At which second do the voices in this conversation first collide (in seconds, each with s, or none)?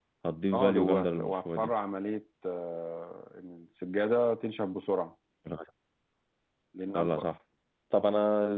0.5 s